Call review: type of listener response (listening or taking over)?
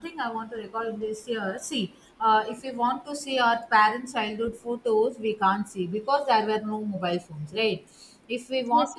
listening